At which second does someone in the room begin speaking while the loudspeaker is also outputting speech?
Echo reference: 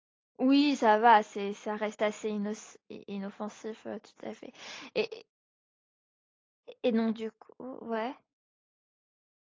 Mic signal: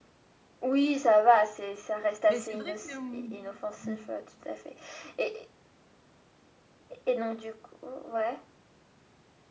2 s

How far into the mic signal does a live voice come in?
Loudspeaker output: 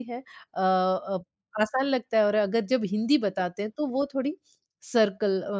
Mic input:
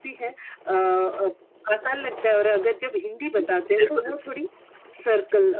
3 s

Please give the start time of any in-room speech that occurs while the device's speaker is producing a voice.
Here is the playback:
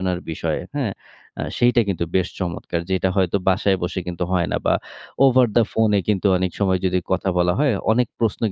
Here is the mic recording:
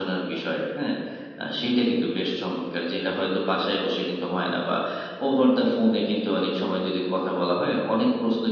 none

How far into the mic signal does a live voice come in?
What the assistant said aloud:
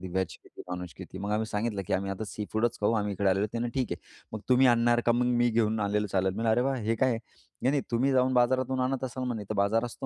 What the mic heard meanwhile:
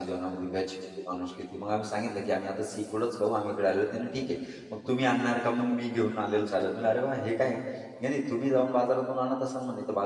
none

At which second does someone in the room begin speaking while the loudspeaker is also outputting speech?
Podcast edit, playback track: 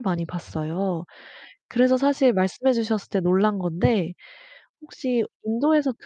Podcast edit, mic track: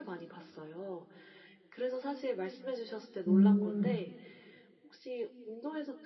3 s

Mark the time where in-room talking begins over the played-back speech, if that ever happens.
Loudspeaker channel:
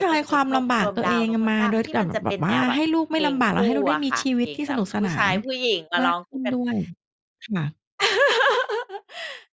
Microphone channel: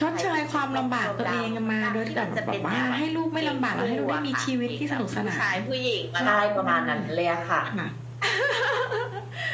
6 s

